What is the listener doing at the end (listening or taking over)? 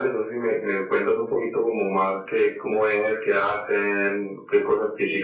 taking over